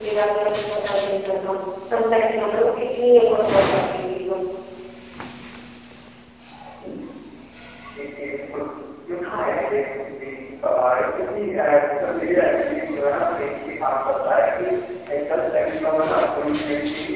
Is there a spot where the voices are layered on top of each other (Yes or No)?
No